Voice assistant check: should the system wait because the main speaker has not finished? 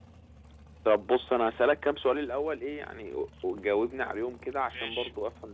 Yes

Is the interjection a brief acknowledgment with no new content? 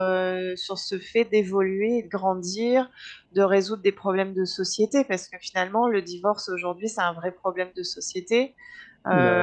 Yes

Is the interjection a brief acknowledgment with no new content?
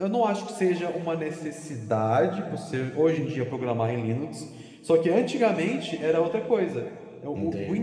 Yes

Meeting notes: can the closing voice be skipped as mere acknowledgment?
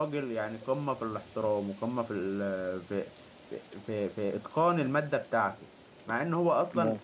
Yes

